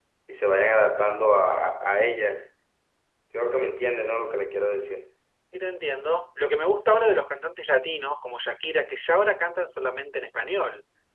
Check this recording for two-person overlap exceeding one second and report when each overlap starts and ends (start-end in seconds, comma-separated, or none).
none